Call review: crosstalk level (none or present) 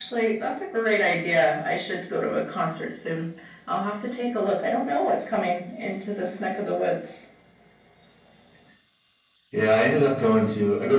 none